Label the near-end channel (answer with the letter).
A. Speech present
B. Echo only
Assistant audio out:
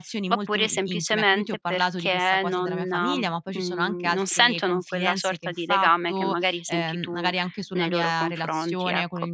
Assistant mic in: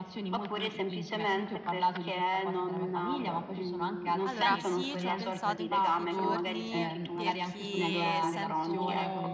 A